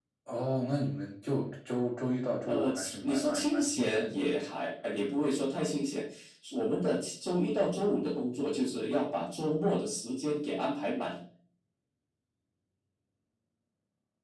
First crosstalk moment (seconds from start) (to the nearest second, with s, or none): 2 s